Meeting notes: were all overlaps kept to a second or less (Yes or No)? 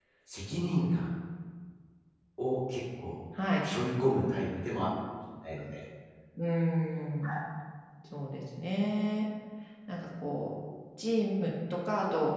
Yes